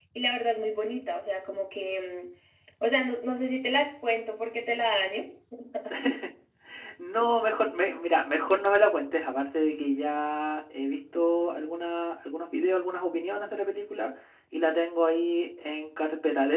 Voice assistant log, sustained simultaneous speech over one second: none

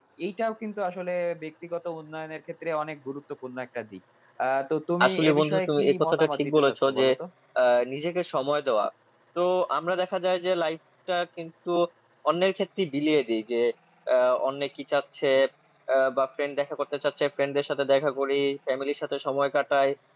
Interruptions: present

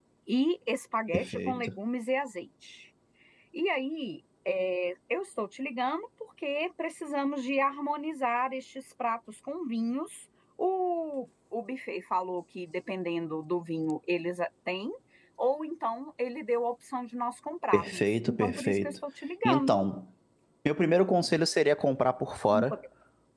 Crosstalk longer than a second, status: present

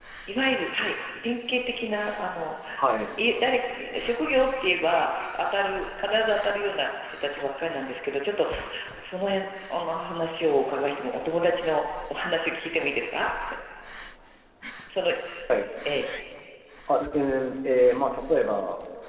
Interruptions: none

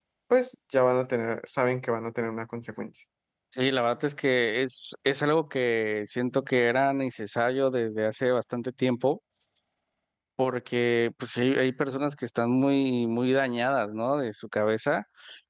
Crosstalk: none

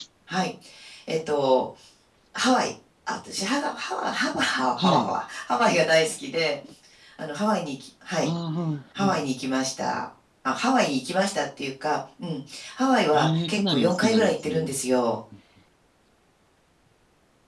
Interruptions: present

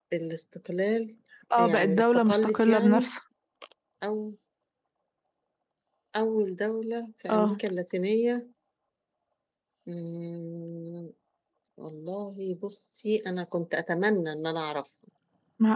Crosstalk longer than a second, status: present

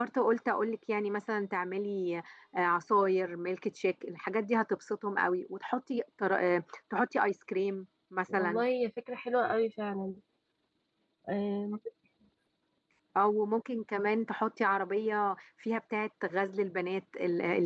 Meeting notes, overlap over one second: none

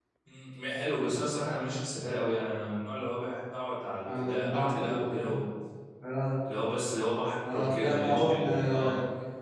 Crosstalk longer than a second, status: present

